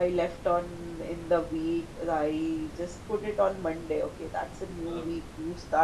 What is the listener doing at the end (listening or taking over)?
listening